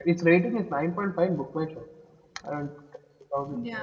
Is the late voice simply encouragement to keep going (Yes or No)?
Yes